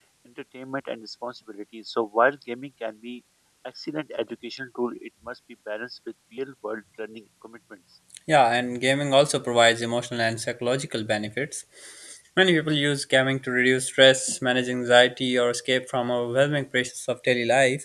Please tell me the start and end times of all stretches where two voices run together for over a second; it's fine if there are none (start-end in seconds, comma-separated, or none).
none